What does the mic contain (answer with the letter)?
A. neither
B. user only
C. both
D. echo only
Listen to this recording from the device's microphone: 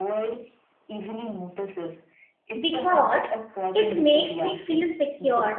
C